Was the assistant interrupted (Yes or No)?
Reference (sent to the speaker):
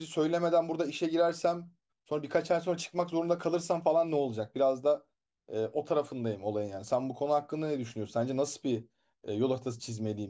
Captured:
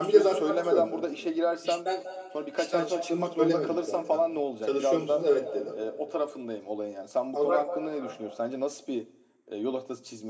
Yes